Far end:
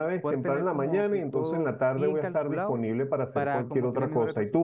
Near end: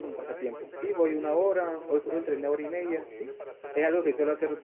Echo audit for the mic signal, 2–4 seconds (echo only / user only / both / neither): both